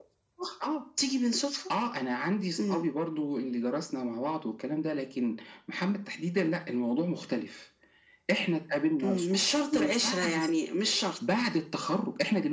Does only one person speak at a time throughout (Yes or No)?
No